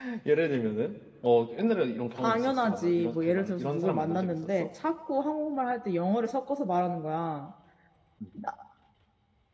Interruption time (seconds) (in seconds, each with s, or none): 2.2 s